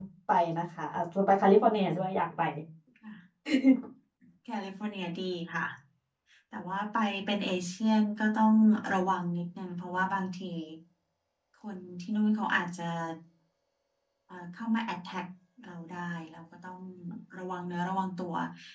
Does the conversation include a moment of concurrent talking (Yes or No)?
No